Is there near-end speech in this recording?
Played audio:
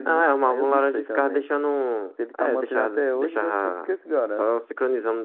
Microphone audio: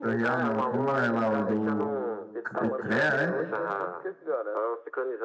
Yes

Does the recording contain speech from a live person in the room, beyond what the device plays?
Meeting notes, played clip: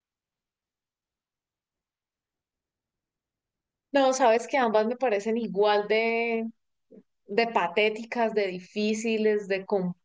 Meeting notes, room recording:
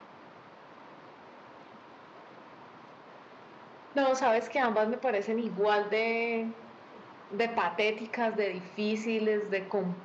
No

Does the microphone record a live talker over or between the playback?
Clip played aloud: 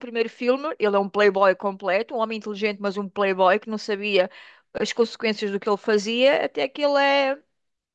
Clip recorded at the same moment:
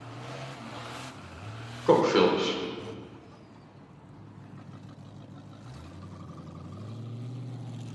Yes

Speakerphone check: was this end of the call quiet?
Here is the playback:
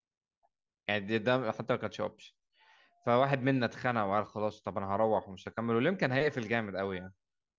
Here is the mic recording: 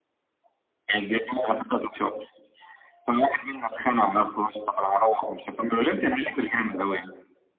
Yes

